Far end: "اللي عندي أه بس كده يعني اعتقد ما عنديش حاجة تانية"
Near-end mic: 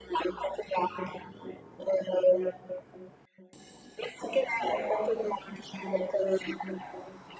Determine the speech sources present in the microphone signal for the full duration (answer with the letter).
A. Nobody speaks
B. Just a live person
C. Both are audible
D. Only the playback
D